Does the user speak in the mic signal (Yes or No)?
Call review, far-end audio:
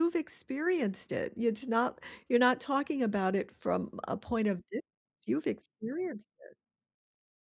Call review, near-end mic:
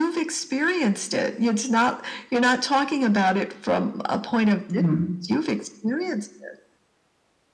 Yes